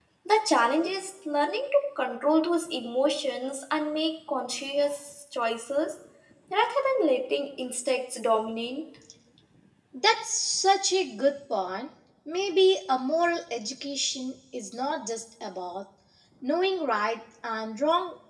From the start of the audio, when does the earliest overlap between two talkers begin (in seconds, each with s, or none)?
none